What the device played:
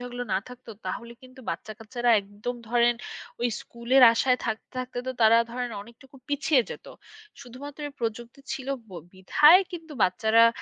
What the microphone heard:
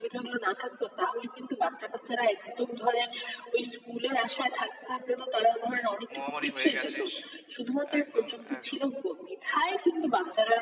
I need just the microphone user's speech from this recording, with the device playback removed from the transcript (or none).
মহামারী হয়ে গেছে স- একদম একদম